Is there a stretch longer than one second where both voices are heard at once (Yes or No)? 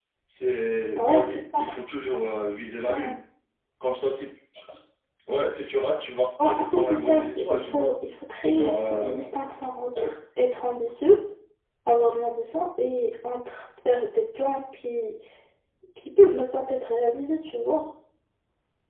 Yes